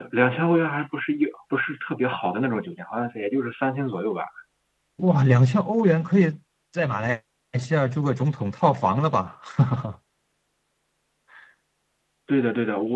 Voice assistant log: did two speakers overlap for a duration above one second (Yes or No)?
No